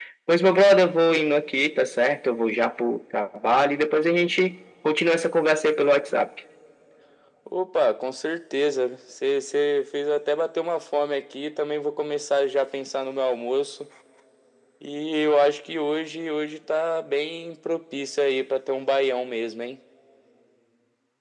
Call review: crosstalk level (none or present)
none